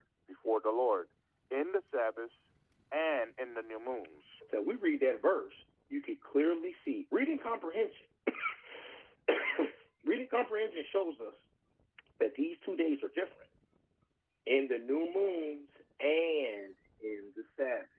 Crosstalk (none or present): none